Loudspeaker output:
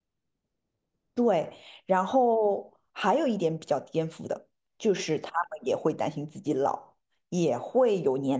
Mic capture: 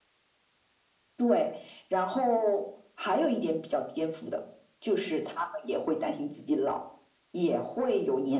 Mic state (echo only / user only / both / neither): echo only